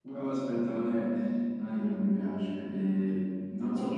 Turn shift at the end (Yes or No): No